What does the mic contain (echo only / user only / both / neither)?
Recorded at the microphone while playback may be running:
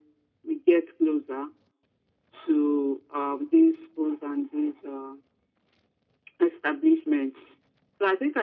echo only